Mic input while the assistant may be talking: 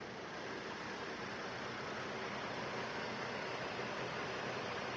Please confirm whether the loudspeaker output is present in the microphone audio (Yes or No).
No